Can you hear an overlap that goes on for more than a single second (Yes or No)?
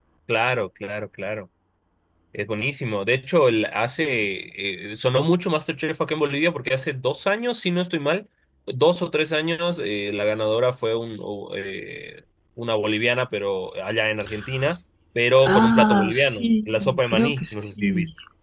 Yes